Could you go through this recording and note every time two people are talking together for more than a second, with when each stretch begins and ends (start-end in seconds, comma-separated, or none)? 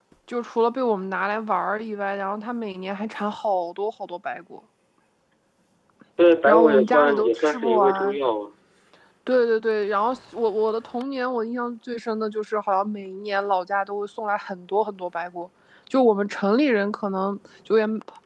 6.5-8.2